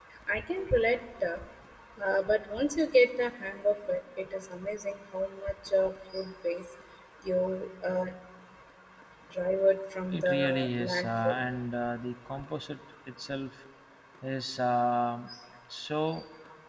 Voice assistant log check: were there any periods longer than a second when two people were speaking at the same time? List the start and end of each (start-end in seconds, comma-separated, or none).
10.1-11.4